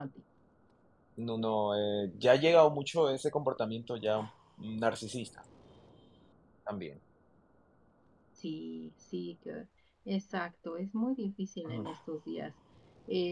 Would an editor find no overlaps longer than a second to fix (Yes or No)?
Yes